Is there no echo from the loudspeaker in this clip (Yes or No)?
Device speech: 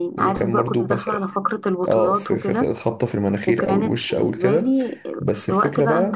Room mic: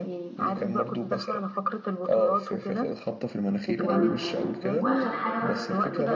No